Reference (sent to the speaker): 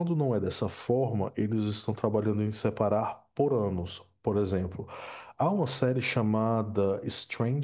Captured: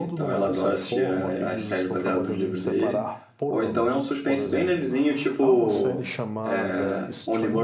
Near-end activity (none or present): present